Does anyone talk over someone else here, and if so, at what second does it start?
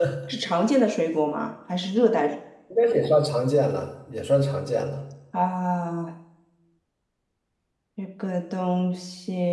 none

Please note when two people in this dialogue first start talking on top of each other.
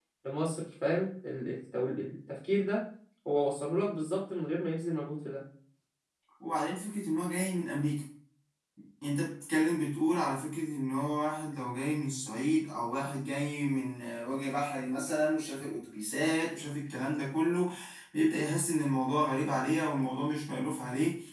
none

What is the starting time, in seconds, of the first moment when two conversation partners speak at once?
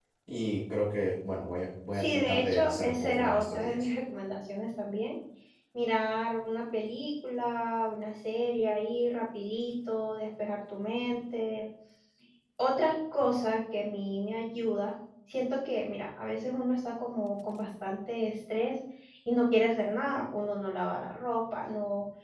1.9 s

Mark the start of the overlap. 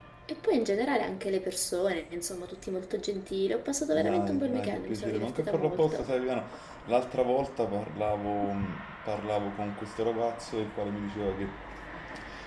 3.9 s

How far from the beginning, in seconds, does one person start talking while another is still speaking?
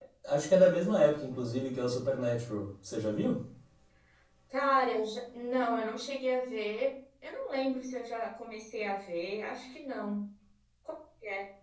none

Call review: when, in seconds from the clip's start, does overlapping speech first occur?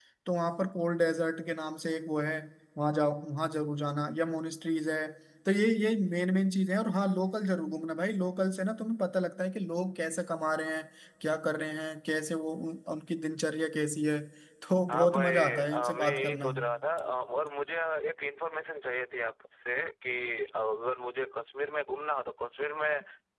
14.9 s

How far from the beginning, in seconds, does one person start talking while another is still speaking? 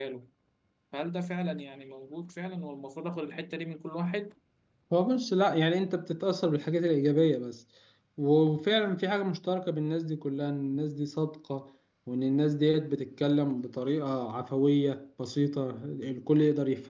none

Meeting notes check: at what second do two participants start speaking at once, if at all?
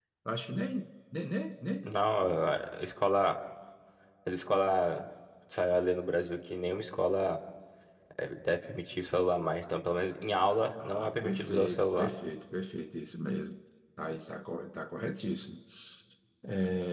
10.8 s

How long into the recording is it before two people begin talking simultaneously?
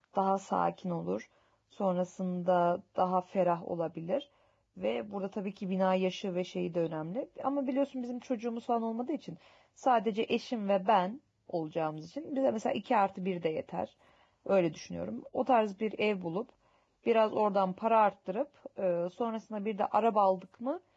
none

